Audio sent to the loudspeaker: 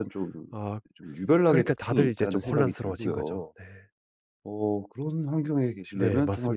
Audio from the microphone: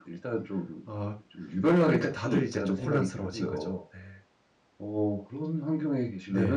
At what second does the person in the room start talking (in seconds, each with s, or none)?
none